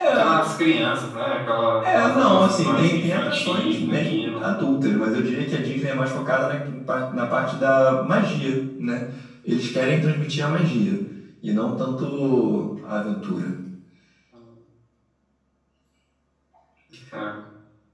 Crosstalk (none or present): present